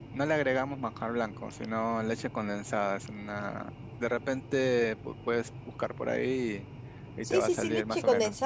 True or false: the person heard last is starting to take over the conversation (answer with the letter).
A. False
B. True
B